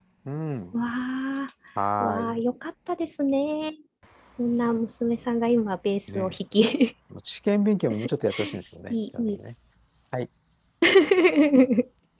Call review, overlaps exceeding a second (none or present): none